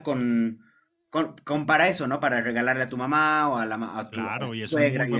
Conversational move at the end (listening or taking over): taking over